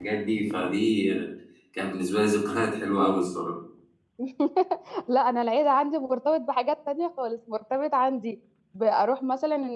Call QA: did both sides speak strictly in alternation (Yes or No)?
Yes